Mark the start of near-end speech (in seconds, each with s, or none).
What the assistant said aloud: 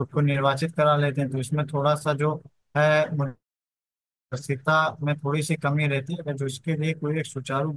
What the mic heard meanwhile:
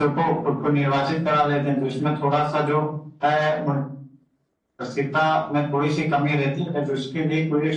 none